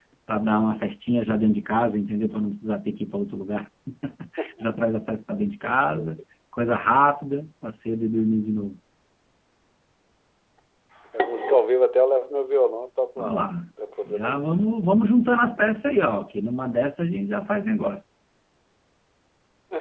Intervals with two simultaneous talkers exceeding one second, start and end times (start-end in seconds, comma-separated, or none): none